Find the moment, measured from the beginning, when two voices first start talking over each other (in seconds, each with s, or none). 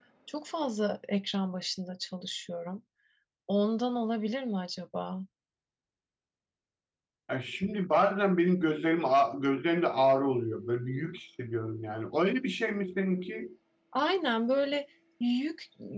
none